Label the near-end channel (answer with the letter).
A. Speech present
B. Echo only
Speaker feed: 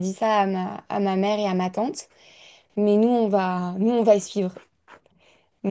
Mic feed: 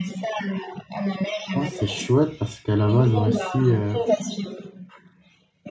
A